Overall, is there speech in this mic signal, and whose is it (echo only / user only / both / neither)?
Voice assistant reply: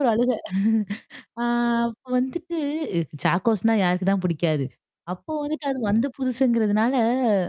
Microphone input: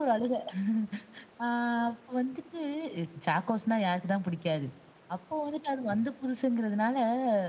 echo only